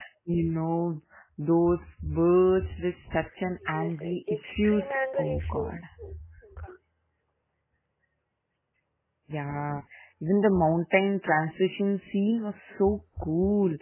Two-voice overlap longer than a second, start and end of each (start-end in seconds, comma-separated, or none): 3.7-5.8